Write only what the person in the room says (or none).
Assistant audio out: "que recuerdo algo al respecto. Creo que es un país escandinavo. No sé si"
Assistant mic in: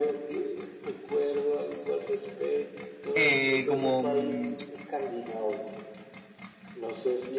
Eh, como mm,